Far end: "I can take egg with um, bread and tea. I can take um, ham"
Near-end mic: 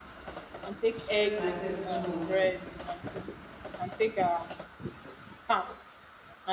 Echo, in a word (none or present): present